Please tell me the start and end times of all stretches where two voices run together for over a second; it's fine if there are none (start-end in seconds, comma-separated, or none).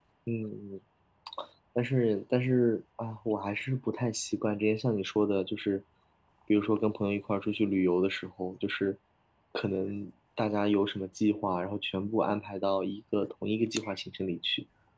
none